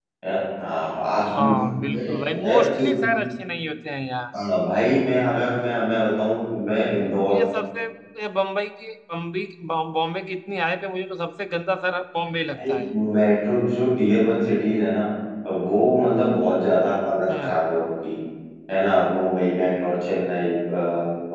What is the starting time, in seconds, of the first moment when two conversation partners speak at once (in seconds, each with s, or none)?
1.3 s